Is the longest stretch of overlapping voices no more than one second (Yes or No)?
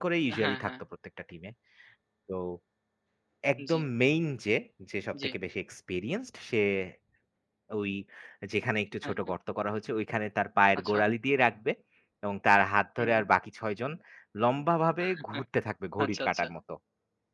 Yes